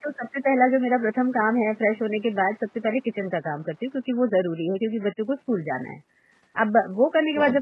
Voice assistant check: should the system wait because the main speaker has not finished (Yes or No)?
Yes